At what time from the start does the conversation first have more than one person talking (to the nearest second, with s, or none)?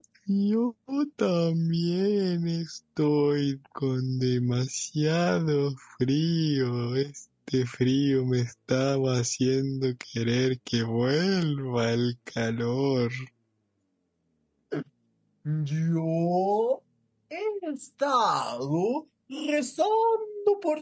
none